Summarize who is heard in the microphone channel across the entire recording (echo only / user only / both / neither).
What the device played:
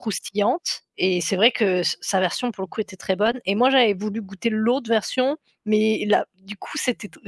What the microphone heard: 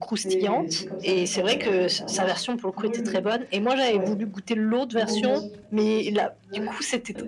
both